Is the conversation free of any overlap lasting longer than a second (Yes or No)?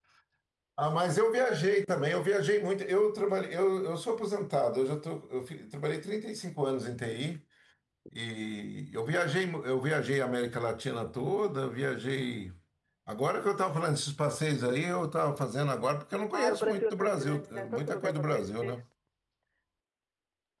No